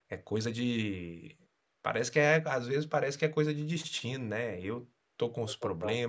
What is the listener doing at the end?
listening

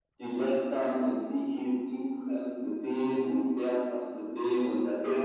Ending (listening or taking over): listening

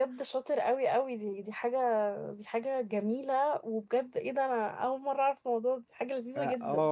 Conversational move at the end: taking over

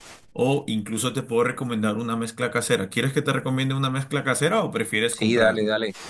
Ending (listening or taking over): taking over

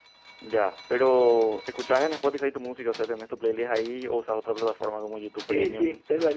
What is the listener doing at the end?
taking over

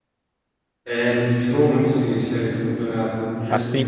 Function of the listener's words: taking over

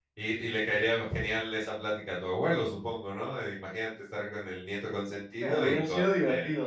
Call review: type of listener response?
taking over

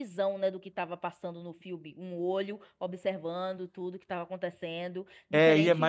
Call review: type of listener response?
taking over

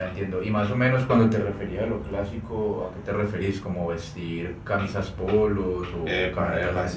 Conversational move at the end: taking over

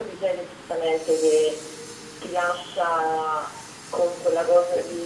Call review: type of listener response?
listening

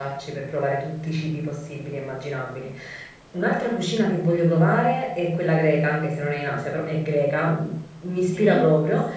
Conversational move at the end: listening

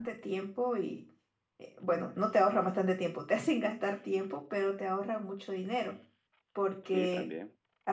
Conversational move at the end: listening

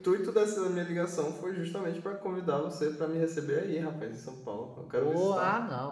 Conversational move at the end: taking over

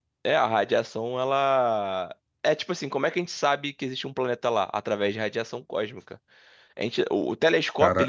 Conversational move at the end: listening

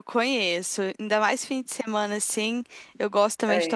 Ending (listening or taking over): listening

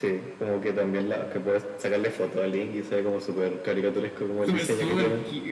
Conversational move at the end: taking over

